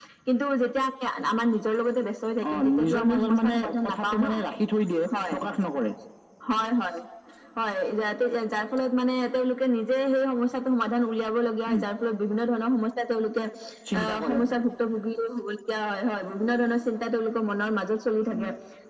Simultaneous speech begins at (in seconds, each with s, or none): 2.5 s